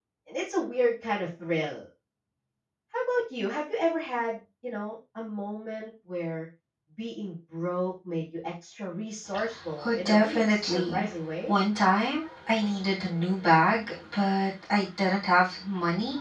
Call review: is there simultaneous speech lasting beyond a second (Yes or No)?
Yes